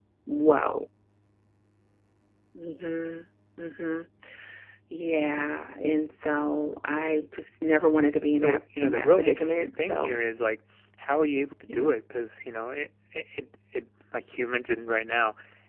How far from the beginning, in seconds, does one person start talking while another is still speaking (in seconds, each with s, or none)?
8.3 s